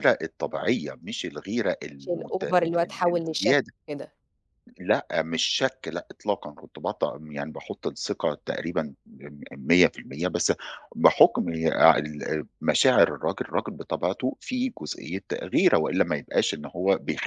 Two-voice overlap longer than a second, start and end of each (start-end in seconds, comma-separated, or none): 2.0-3.5